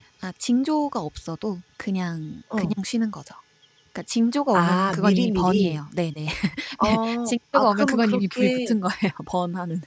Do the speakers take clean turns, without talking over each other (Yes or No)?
No